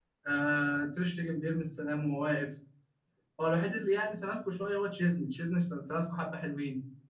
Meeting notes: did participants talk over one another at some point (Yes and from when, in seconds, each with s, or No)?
No